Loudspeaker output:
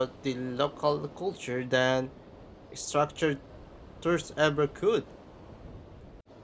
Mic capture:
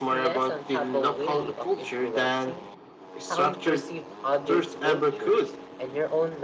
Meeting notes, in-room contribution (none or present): present